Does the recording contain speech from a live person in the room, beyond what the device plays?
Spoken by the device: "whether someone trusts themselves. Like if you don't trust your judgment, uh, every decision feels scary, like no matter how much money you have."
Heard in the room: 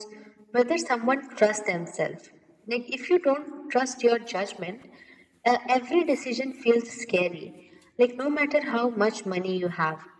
No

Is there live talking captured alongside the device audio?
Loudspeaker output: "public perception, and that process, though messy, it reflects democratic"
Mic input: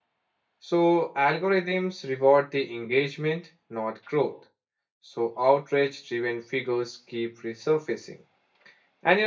Yes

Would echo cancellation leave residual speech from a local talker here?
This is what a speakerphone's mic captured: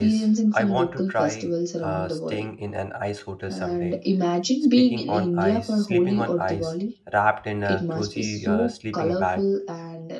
Yes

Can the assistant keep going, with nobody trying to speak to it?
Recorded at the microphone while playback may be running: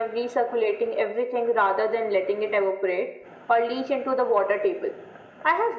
Yes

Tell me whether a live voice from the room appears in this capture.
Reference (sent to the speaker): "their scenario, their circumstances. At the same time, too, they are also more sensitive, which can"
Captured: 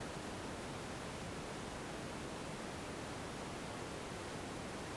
No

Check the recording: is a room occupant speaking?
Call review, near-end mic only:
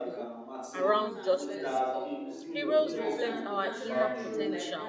Yes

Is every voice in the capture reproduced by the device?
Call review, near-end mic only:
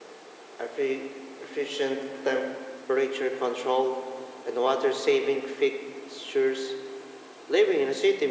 Yes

